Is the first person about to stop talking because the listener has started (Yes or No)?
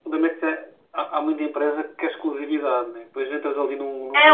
Yes